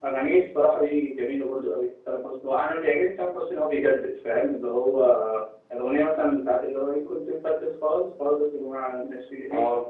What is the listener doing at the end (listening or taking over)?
taking over